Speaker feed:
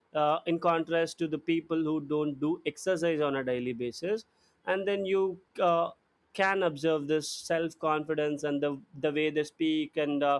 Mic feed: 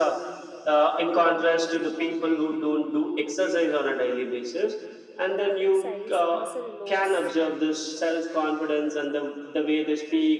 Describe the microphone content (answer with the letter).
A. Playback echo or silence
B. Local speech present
B